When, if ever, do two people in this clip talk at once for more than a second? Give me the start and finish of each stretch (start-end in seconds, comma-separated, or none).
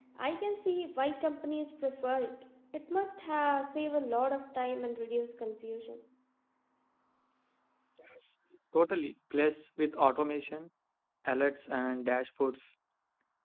none